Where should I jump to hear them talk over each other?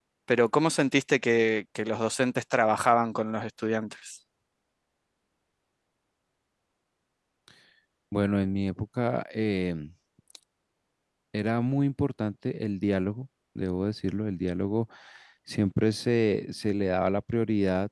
none

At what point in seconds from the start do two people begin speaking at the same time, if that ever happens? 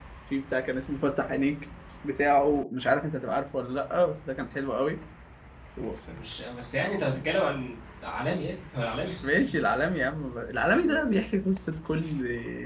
none

